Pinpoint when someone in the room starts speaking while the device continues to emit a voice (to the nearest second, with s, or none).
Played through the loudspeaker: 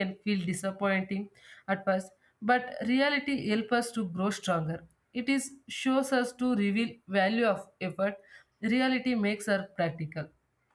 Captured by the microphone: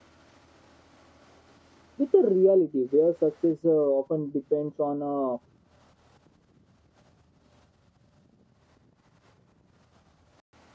2 s